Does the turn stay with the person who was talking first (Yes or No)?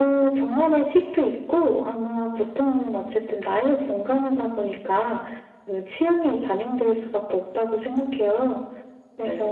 Yes